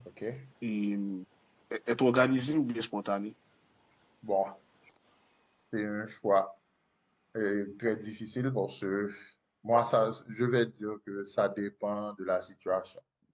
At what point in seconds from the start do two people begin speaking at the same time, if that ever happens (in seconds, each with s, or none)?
none